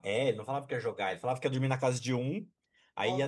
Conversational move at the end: listening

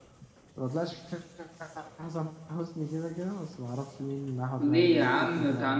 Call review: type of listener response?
taking over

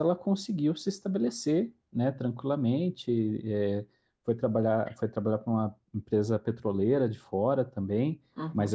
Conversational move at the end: taking over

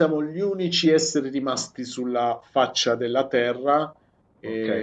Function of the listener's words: taking over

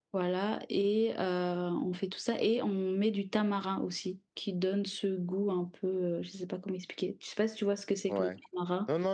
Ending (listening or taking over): taking over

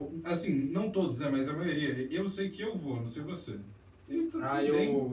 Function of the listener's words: taking over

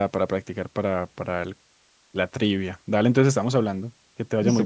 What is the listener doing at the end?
taking over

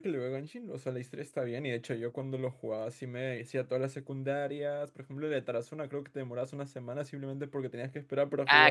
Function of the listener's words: taking over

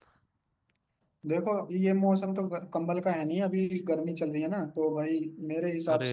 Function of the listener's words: listening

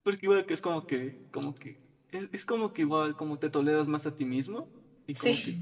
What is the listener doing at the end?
listening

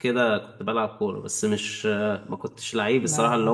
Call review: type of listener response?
listening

